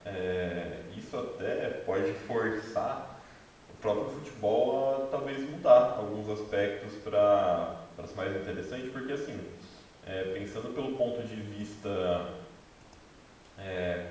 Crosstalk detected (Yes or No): No